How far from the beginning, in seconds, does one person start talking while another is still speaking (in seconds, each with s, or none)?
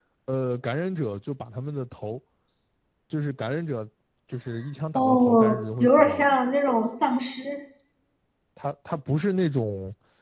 5.0 s